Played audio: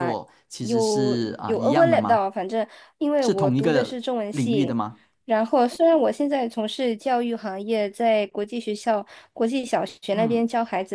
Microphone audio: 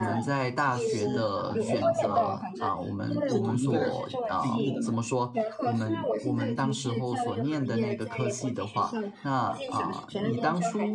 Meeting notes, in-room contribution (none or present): present